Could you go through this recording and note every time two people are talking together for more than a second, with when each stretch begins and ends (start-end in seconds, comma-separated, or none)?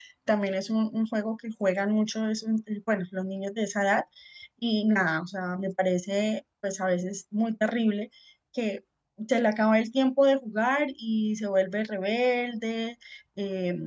none